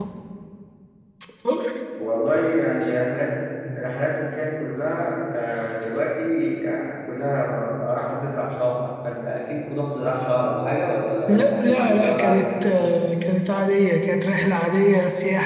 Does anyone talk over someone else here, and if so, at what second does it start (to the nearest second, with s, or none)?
11 s